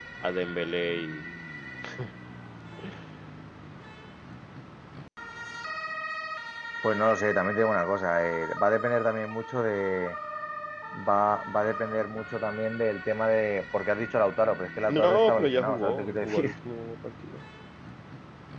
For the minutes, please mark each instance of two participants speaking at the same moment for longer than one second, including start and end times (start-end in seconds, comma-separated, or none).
14.9-16.5